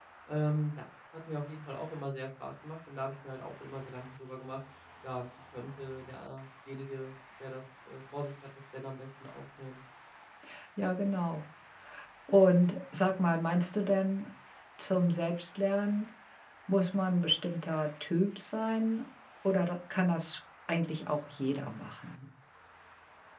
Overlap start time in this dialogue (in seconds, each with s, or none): none